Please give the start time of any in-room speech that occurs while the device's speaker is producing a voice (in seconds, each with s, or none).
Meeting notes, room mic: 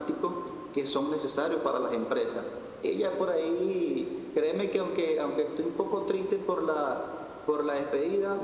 none